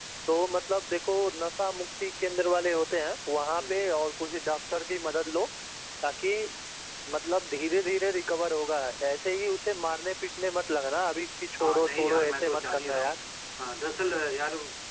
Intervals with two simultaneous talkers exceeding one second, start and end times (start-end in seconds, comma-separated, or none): 11.6-13.1